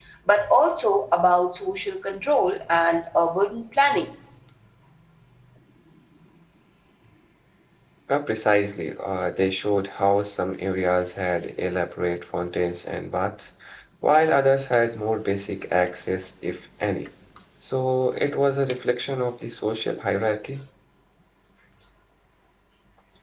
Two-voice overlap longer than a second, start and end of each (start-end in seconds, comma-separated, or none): none